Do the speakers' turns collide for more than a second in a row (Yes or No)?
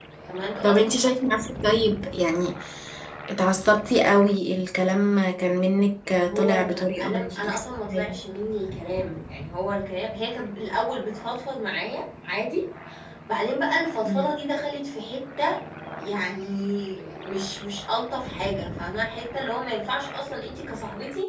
Yes